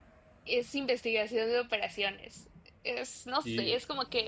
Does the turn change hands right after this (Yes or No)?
No